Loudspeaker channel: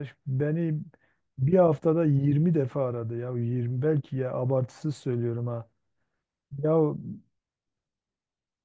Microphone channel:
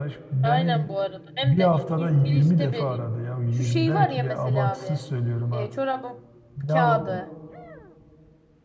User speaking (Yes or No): Yes